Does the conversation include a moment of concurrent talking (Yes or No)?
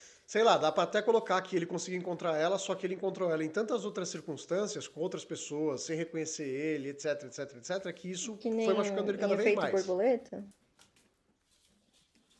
Yes